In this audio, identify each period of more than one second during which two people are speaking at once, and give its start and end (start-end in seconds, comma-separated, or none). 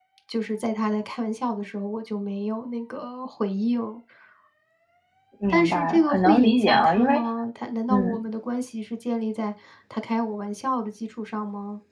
5.5-7.2